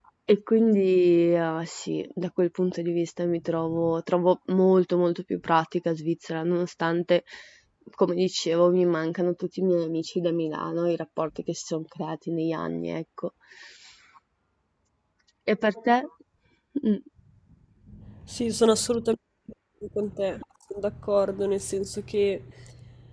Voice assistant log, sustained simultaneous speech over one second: none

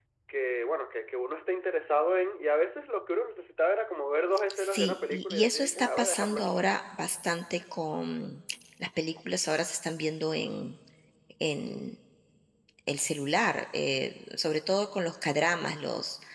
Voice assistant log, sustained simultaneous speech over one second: present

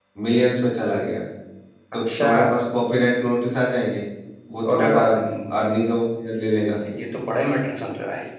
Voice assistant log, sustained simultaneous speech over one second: none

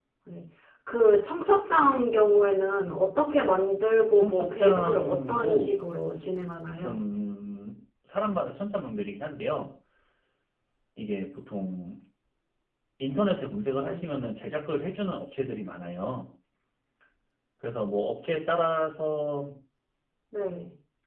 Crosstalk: present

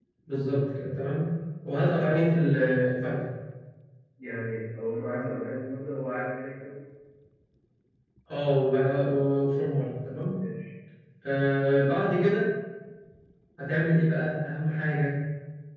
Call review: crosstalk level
none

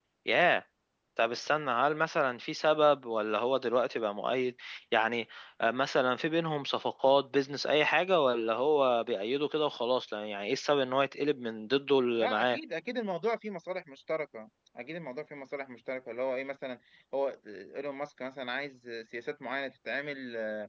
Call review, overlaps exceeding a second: none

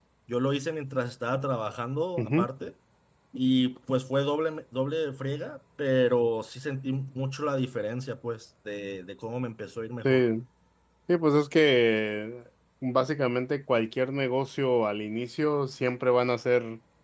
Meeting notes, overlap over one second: none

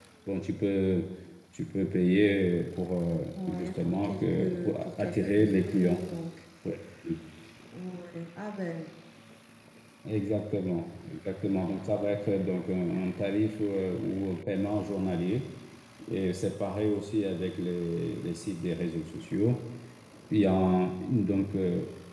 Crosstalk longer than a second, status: present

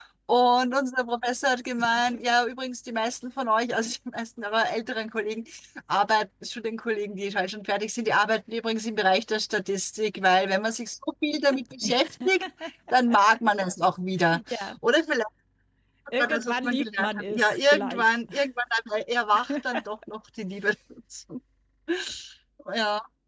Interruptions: present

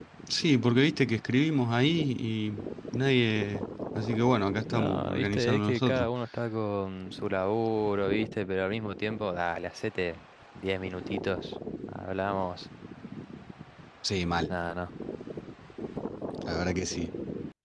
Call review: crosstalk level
present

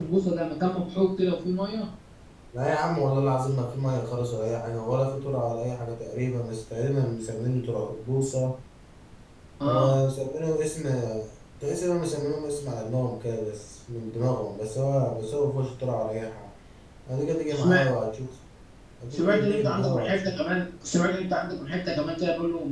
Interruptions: present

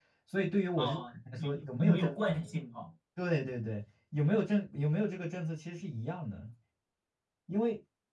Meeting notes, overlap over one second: present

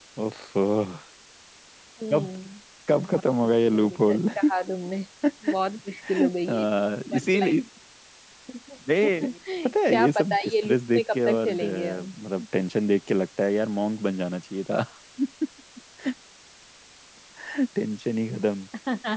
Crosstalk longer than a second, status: present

